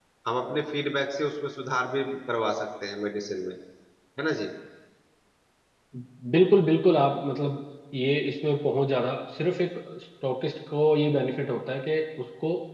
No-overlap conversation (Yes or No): Yes